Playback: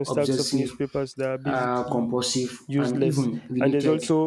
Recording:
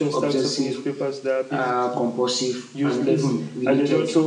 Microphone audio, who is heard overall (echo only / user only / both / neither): echo only